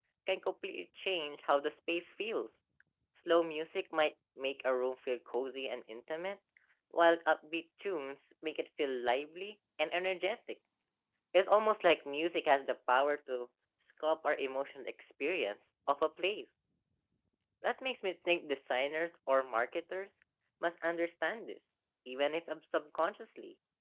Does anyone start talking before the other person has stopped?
No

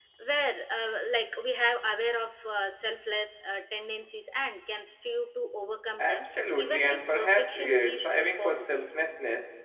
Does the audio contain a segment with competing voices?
Yes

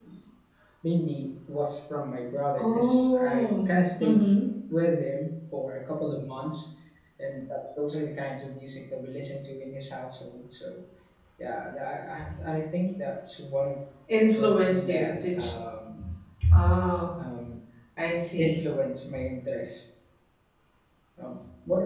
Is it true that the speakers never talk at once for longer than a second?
No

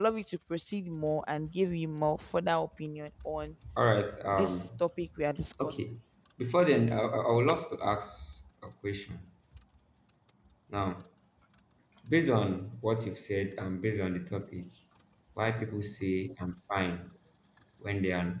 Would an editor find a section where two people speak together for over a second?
No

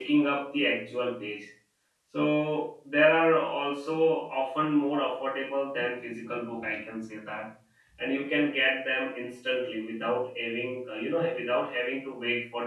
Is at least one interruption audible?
No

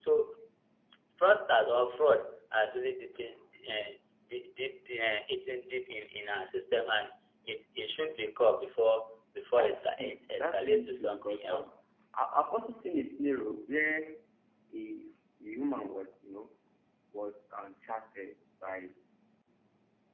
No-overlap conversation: No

